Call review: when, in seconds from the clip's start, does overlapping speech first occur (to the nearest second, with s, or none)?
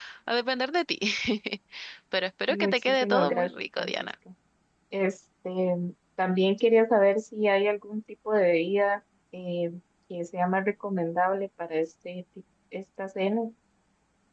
2 s